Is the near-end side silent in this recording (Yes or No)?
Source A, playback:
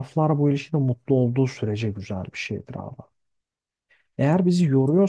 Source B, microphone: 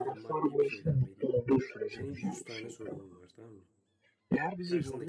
No